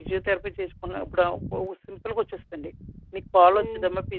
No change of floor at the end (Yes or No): Yes